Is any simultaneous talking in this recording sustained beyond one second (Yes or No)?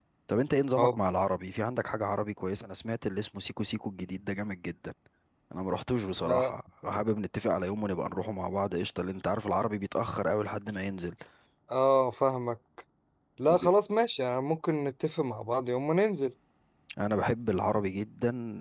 No